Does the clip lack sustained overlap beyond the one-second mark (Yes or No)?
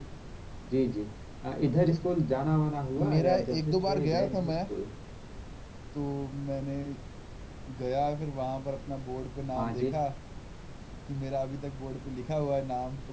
No